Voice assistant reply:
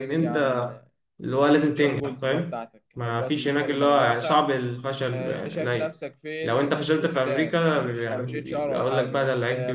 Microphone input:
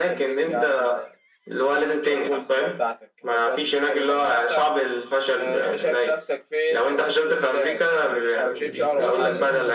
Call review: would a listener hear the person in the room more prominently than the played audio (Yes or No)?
No